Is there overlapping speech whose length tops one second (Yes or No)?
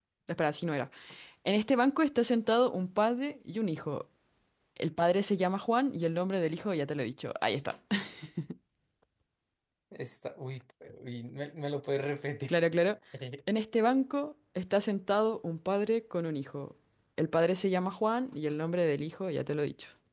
No